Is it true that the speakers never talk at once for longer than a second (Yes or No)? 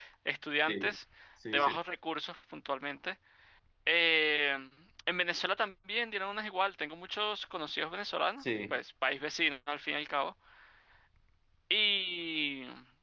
Yes